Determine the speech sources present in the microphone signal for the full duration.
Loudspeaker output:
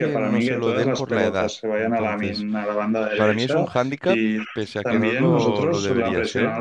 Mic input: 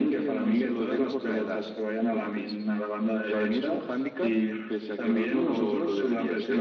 echo only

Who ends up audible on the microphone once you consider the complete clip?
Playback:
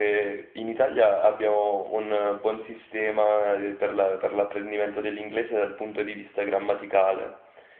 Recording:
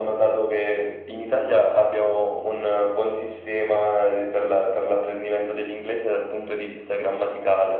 echo only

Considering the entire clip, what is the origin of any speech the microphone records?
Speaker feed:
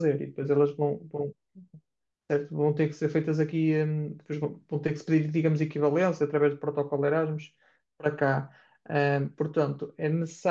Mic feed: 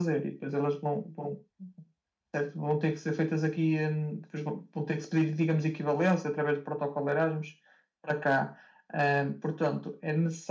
echo only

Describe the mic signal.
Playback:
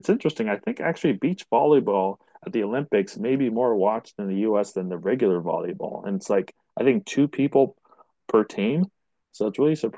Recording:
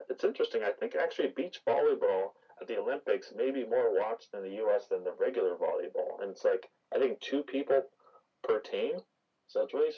echo only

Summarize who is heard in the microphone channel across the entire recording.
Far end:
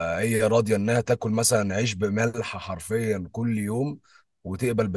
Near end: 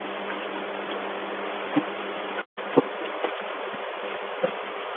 neither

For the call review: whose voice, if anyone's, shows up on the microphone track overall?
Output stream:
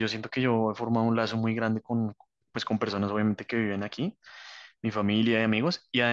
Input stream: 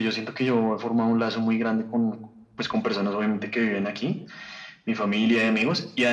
echo only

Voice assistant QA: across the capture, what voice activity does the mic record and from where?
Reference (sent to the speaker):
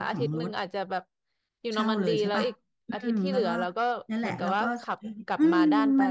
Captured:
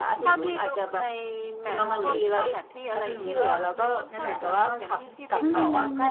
both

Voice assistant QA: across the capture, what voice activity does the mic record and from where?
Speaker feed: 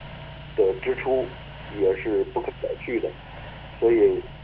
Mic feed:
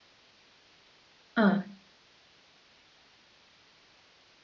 user only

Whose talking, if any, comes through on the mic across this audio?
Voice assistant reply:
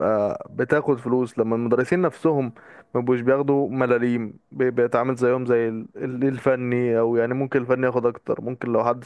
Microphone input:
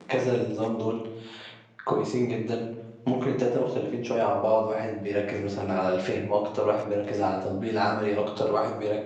user only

